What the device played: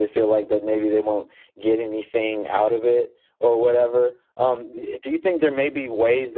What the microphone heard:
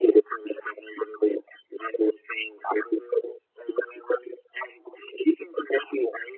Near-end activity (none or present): none